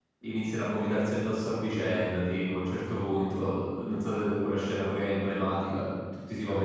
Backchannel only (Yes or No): Yes